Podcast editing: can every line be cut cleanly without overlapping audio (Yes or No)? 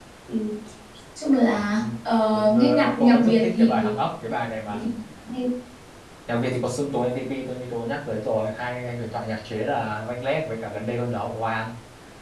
No